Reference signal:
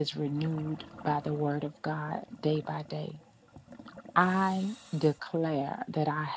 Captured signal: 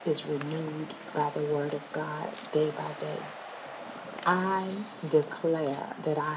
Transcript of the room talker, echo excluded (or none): none